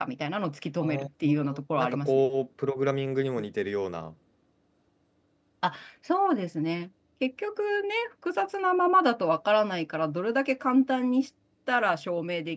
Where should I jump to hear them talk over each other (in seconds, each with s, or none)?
0.8 s